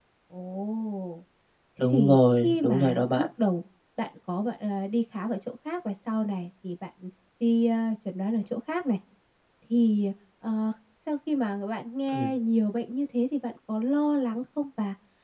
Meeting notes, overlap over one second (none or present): present